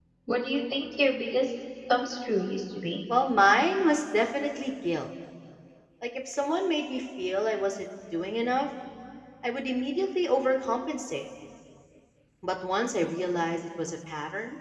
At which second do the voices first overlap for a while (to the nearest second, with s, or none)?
none